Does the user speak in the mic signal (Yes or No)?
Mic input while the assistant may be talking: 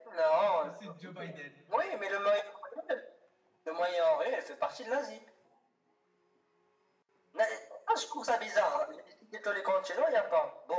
Yes